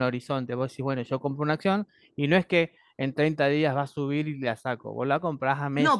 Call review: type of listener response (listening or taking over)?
taking over